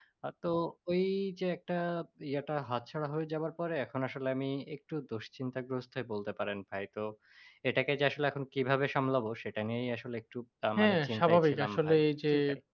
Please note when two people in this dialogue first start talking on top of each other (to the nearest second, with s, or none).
11 s